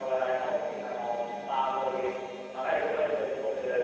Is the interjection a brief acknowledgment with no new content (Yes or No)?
Yes